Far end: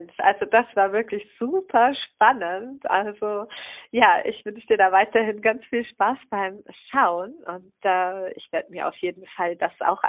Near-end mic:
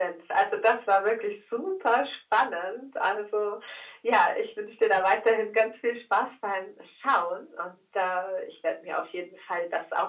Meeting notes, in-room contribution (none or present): none